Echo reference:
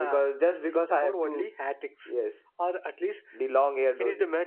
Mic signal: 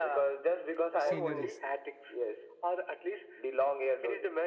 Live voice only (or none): sceneries